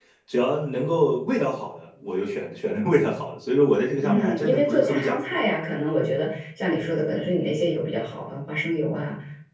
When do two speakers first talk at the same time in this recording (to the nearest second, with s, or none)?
4 s